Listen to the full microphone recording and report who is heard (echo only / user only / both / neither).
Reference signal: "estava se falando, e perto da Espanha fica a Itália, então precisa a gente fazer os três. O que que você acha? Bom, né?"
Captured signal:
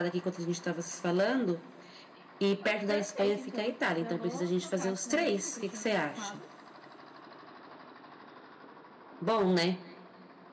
both